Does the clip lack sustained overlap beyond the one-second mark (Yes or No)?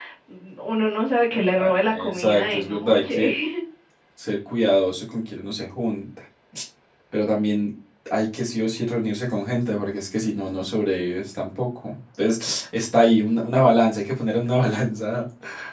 No